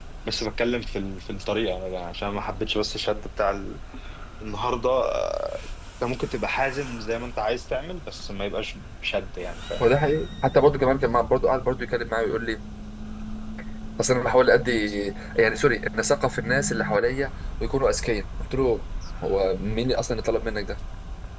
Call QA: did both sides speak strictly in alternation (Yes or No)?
Yes